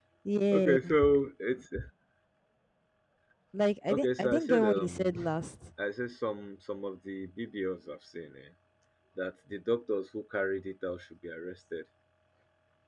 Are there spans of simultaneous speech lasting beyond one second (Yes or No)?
Yes